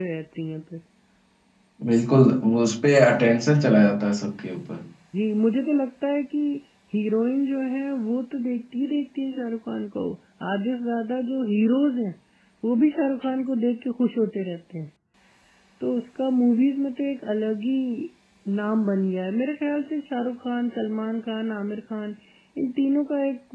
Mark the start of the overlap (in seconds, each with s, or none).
none